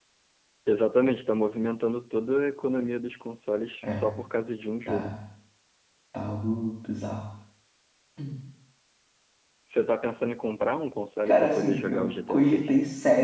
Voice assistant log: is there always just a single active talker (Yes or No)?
No